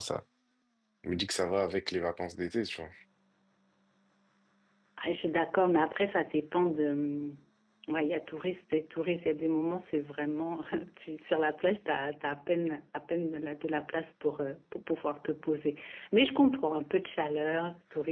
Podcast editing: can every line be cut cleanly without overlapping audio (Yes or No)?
Yes